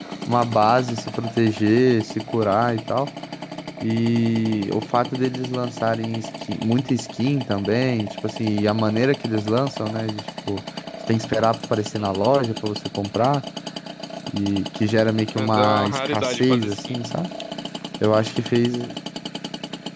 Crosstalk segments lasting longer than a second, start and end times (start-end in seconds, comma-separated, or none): 15.5-16.9